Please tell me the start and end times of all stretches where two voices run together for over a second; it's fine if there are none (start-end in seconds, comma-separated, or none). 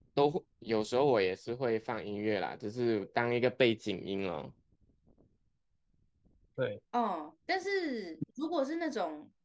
none